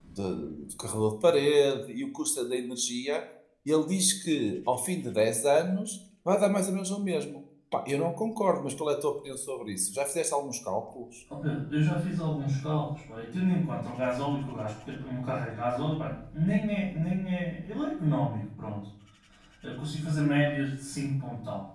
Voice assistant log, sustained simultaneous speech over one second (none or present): none